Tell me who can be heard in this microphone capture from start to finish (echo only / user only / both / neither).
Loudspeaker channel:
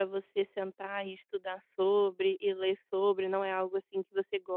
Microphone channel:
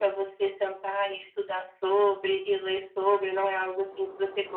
echo only